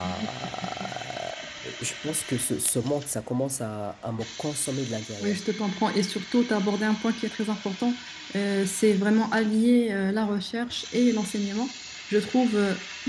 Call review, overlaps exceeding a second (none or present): none